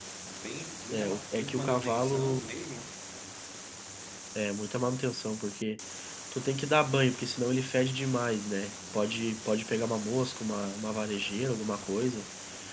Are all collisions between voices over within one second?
No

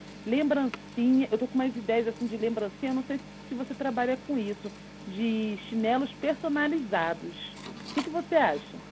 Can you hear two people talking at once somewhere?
No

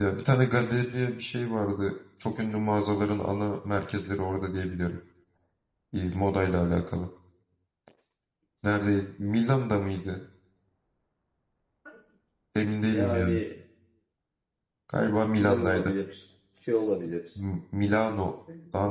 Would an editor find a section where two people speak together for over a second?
No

